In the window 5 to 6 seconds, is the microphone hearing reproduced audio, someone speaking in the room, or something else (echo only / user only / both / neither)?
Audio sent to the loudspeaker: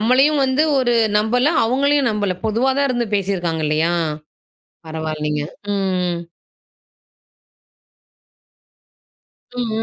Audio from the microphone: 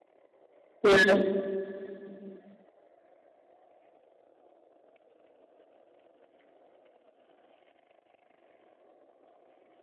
neither